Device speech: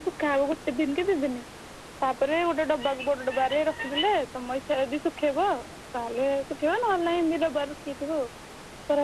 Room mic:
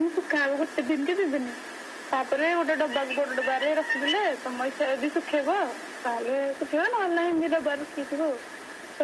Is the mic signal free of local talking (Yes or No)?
Yes